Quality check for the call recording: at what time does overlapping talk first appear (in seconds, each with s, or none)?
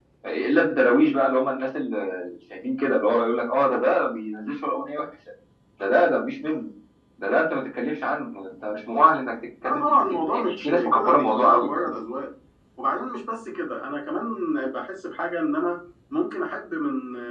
9.6 s